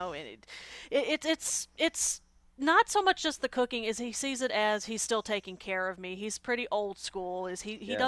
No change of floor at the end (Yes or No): Yes